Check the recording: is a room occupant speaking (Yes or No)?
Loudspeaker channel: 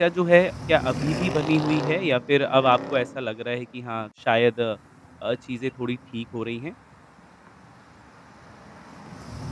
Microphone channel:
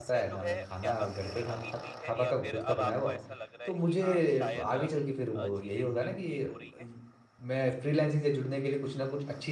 Yes